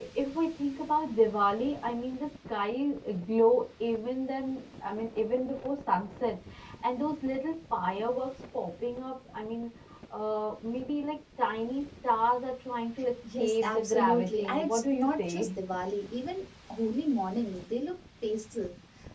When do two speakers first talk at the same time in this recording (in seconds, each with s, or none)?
13.2 s